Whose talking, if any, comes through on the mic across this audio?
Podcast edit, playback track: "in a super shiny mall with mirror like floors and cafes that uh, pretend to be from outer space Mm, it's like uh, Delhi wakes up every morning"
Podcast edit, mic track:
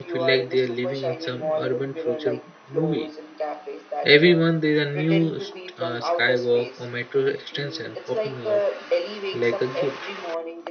both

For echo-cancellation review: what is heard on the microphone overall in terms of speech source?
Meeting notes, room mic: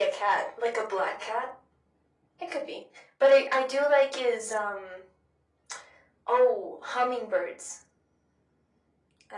echo only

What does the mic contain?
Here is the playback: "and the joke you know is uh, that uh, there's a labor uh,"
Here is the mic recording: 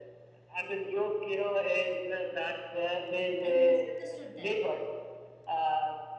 both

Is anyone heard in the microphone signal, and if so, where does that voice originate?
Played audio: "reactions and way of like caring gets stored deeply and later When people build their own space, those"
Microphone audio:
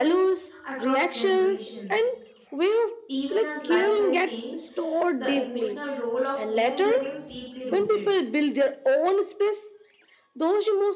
both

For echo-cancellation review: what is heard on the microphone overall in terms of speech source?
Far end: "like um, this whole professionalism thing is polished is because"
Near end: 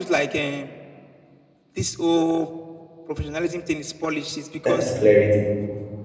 both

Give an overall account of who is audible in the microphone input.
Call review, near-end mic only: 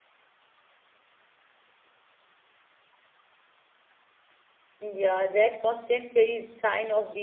user only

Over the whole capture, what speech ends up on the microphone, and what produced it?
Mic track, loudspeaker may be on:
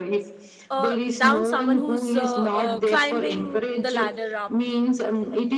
both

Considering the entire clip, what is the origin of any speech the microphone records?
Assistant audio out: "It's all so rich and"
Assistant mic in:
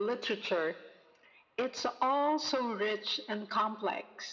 echo only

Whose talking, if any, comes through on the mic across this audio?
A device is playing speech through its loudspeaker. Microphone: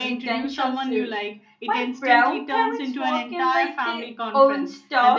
both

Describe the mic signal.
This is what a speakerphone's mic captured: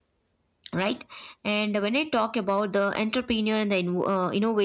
user only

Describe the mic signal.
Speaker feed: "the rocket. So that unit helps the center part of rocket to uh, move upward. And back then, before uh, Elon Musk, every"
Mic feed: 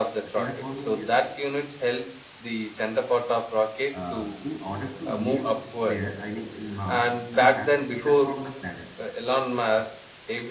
both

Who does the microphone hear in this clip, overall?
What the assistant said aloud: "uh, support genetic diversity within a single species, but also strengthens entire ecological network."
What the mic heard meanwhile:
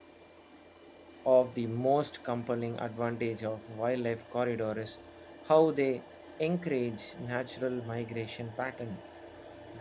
user only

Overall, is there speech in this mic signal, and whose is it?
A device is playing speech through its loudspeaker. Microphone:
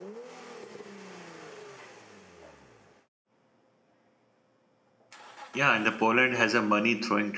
user only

